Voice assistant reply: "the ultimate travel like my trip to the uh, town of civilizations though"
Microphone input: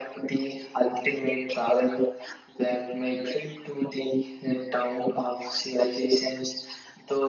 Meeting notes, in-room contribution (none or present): none